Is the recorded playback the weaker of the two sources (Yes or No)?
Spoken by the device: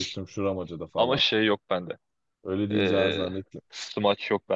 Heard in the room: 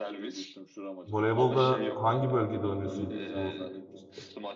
Yes